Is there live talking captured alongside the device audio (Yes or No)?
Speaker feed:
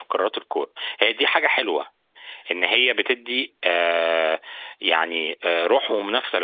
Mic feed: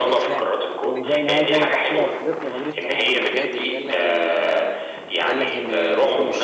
Yes